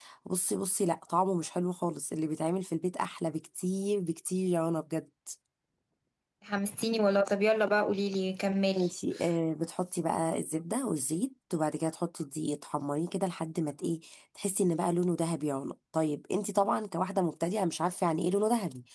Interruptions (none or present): none